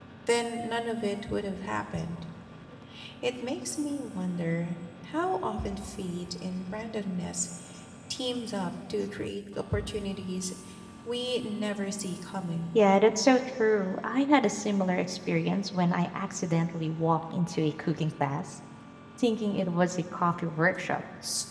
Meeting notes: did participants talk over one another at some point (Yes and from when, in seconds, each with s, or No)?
No